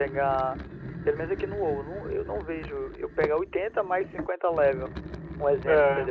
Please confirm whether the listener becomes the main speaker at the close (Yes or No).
Yes